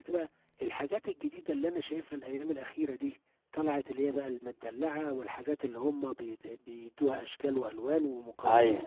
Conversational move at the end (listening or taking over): listening